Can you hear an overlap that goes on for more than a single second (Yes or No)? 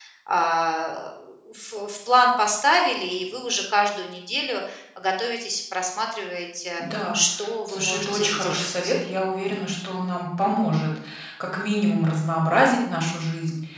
Yes